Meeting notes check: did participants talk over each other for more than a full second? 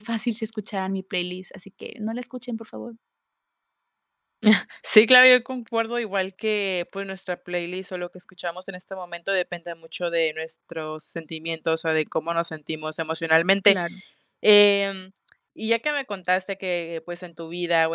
No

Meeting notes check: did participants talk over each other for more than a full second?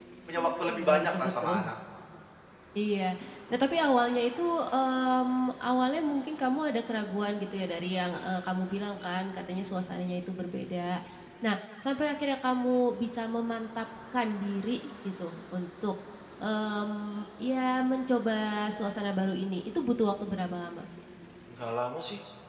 Yes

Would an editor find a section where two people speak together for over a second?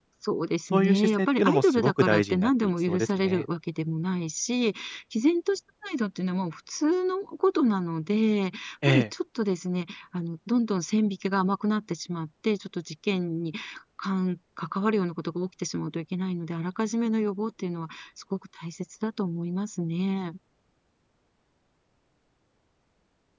Yes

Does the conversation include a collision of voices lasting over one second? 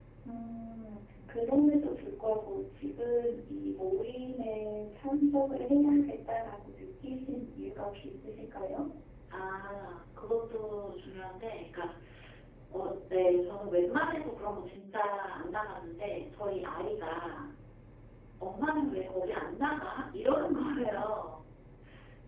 No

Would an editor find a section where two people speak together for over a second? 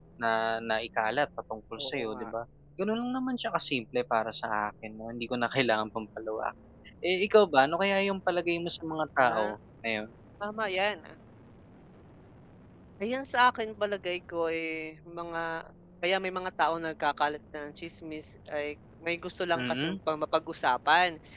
No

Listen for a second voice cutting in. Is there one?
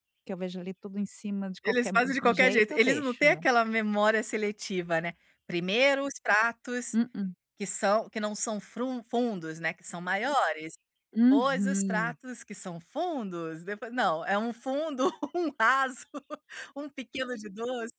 Yes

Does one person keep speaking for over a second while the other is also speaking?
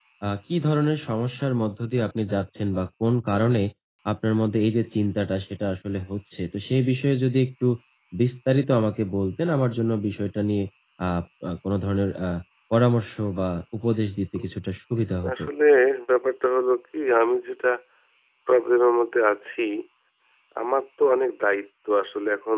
No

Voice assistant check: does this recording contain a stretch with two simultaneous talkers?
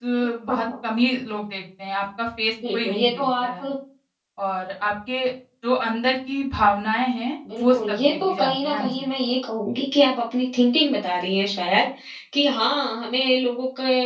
Yes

